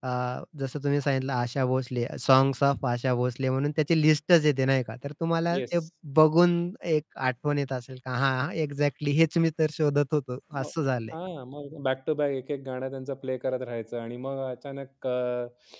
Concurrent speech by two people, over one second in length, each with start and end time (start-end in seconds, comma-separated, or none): none